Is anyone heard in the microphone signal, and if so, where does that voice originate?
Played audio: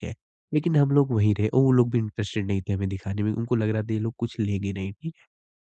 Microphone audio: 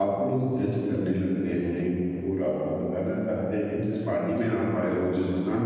user only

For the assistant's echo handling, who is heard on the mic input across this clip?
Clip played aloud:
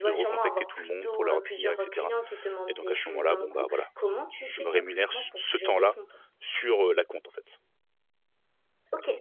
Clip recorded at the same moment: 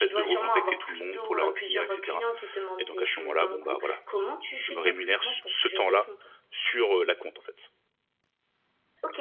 echo only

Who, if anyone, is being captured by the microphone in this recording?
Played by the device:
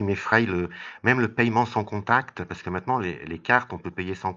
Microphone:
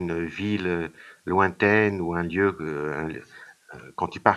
user only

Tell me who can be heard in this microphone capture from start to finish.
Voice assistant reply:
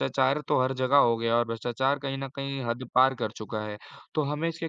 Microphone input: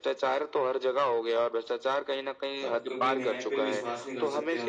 both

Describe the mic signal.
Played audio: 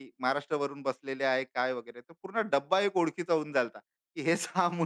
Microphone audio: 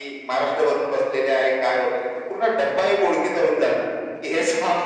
echo only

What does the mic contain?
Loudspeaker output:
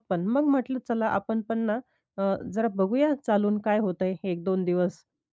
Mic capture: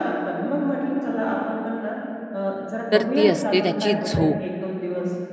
both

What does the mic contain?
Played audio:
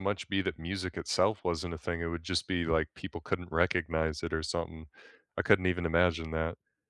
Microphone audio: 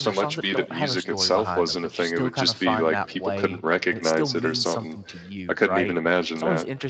both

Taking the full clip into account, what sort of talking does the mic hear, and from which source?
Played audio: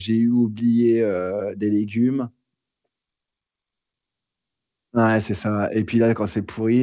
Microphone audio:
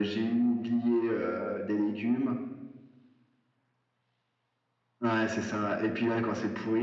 echo only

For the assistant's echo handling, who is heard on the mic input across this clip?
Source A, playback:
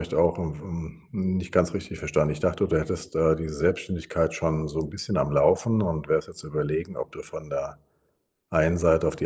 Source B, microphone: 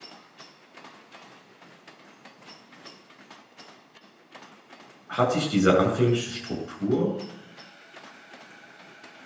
user only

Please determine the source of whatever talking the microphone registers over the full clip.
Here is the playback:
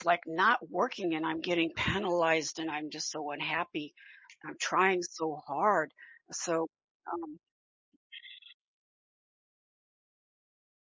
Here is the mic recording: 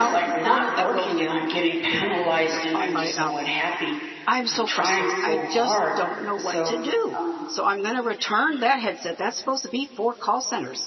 both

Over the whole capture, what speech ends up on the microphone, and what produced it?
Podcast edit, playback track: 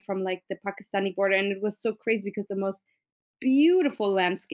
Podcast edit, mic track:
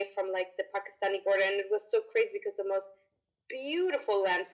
echo only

